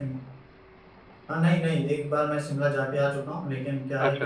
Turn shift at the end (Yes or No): No